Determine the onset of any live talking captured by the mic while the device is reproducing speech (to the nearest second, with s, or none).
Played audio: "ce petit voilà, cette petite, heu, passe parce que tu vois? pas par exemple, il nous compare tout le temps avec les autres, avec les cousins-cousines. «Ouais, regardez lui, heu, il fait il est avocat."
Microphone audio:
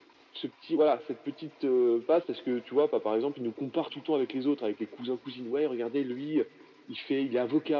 none